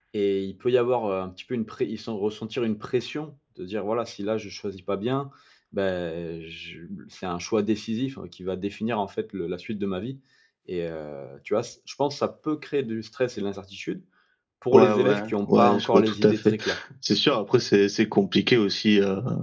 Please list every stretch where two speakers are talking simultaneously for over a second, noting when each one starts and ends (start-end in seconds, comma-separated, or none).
14.7-16.6